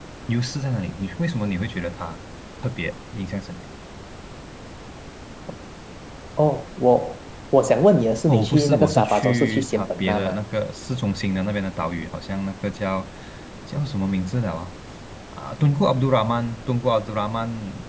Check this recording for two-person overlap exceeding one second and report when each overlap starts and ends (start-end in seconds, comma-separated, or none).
8.3-10.4